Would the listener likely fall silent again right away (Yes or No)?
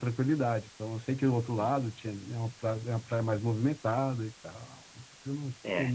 No